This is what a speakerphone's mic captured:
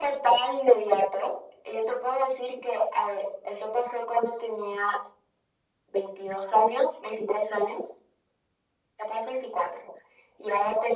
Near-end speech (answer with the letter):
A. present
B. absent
B